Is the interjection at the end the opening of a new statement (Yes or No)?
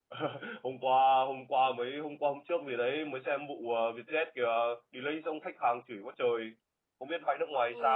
Yes